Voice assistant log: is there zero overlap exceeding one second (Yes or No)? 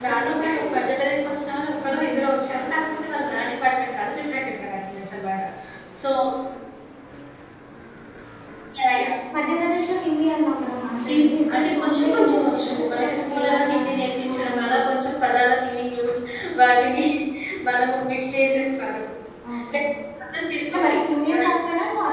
No